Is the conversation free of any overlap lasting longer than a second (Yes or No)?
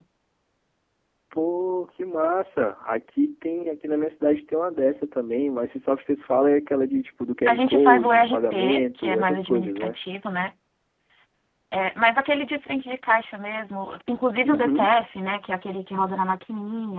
No